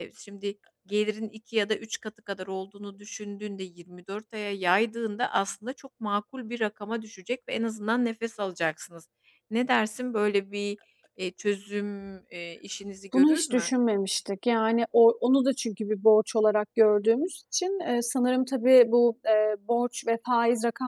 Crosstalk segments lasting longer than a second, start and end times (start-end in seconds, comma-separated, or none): none